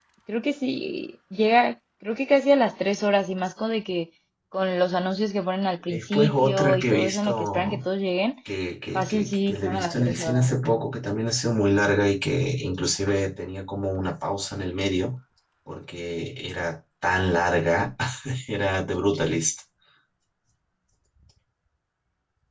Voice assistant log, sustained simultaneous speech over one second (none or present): present